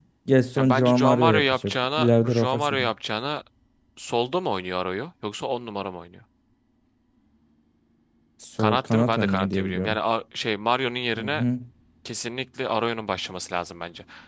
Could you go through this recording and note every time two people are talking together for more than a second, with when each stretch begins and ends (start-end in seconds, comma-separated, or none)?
0.6-2.8, 8.6-10.0